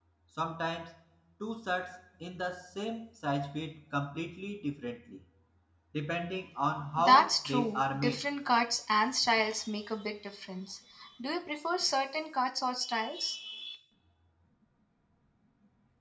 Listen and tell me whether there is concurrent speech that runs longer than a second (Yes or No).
Yes